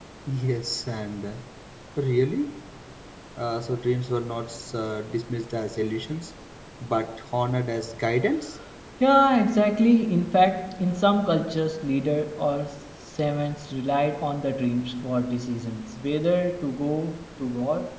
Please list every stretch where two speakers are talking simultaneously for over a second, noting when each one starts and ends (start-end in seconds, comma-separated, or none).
none